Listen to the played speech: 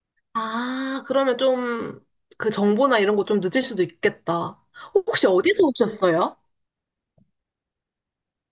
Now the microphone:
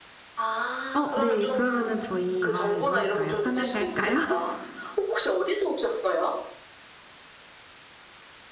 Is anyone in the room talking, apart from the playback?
Yes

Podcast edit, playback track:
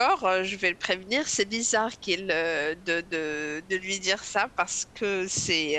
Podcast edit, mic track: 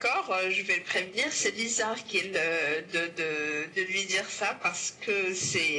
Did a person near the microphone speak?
No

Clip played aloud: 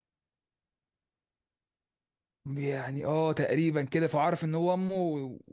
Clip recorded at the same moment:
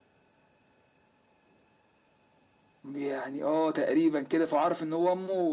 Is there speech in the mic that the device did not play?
No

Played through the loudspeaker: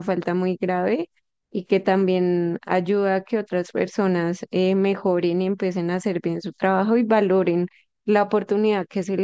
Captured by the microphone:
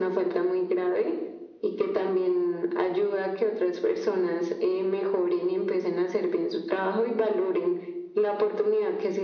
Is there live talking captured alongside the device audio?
No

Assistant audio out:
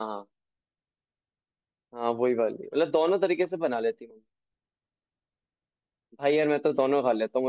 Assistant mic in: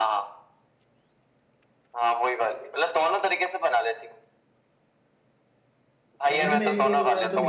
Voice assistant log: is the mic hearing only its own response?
No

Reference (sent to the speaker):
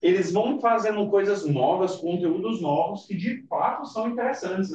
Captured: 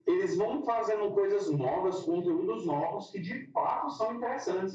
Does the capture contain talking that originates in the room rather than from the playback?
No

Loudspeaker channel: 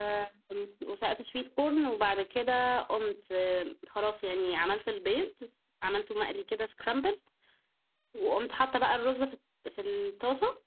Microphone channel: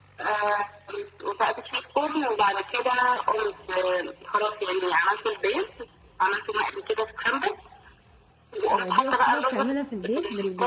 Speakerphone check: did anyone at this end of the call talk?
Yes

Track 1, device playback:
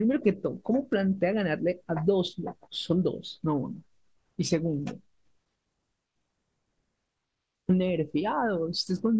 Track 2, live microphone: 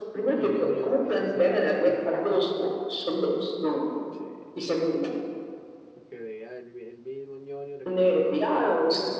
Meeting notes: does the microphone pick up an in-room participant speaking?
Yes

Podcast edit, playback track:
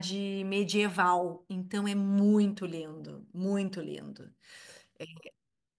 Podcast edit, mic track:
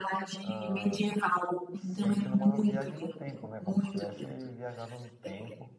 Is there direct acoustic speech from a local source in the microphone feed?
Yes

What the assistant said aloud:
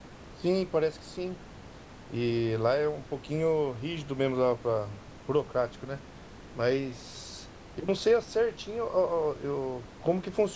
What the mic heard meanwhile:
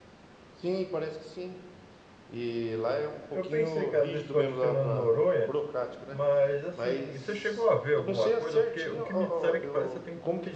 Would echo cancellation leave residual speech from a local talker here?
Yes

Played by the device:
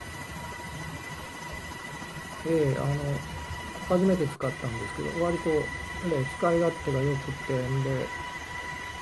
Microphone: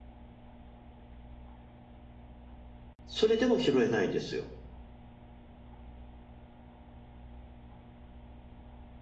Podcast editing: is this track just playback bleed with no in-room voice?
No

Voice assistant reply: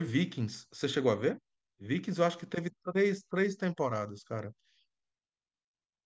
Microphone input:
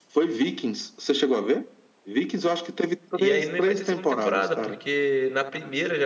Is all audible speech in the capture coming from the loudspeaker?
No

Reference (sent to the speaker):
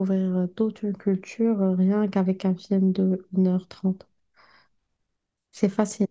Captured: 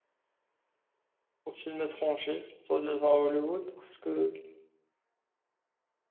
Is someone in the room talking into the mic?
Yes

